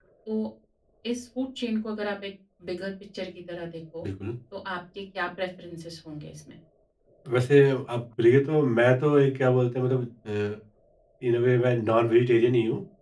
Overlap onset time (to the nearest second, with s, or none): none